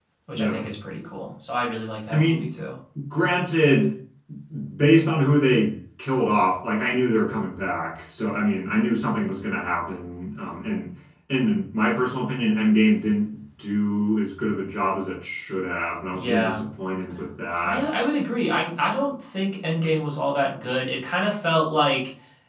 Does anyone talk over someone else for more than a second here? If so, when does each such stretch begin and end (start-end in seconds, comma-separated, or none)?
none